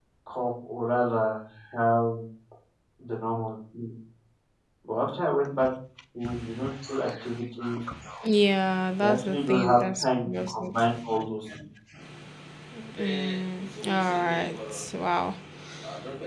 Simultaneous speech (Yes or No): Yes